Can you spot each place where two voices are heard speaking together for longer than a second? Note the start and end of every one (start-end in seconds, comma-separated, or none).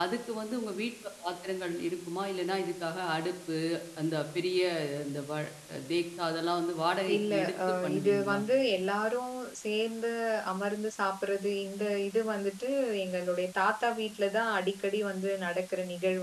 7.2-8.4